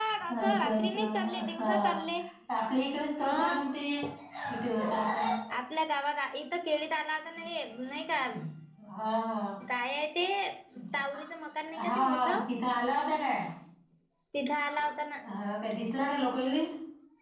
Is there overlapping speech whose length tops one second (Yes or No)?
Yes